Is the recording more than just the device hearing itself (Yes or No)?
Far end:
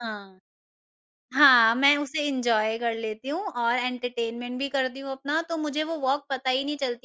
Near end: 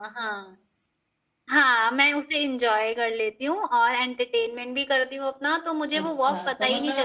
Yes